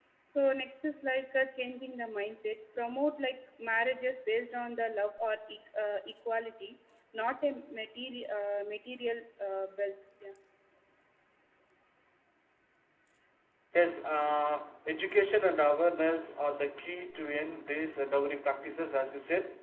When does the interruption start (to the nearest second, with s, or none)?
none